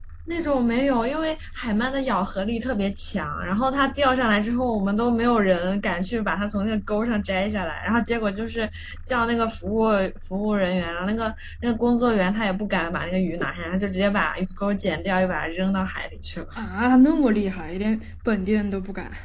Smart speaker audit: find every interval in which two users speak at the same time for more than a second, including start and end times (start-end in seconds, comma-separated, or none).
none